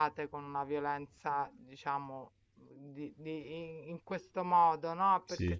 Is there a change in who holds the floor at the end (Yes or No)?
No